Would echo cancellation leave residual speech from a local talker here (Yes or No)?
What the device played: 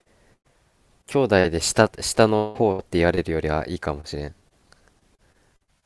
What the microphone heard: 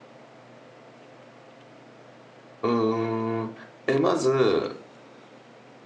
Yes